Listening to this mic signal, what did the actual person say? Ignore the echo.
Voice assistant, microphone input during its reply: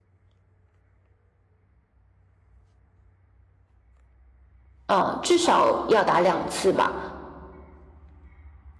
嗯，至少要打两次吧。

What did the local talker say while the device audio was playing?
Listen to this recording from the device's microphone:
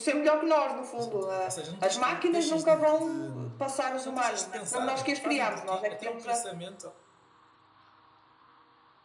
de- ou seja, não tens que, deixas de, de já não deixas de pensar, fazem por ti, até o pensamento,

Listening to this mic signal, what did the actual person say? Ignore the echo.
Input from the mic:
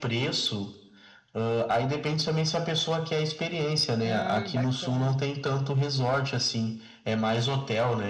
Ah, bacana.

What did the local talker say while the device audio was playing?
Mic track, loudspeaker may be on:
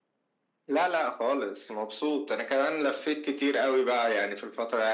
none

